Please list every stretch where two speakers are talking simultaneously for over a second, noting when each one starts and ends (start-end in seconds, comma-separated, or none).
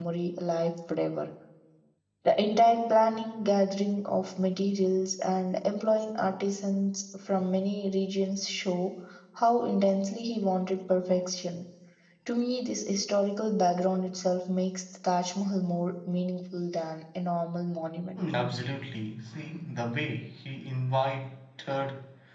none